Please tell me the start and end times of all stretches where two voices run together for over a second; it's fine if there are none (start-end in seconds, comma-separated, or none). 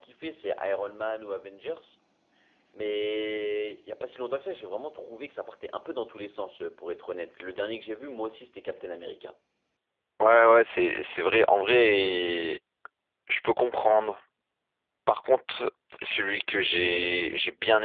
none